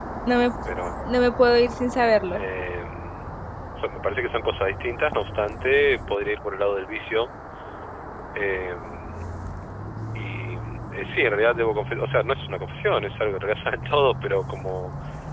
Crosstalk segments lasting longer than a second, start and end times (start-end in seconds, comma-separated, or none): none